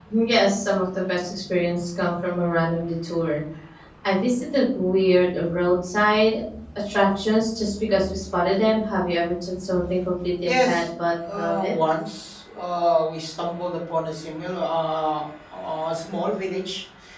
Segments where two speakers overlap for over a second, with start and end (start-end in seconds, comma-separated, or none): none